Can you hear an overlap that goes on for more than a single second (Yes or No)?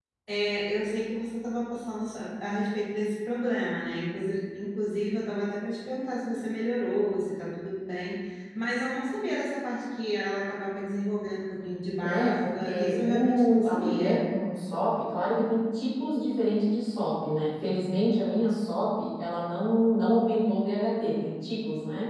Yes